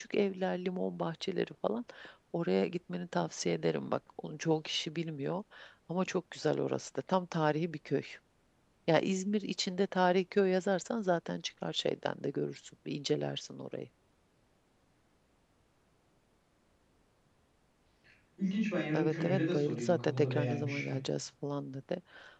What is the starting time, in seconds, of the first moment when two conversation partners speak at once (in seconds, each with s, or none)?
18.9 s